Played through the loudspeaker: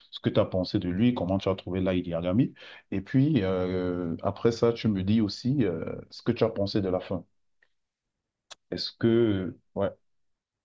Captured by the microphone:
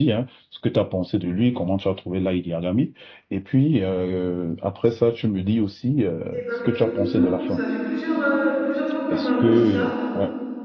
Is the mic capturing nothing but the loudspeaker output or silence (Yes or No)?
No